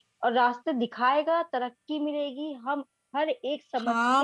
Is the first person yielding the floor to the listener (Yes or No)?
Yes